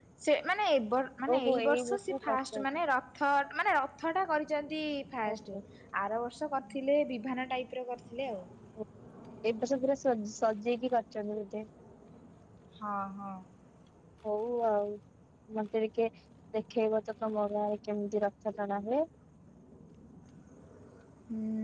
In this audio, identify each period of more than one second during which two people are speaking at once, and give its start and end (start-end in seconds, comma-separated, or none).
1.3-2.6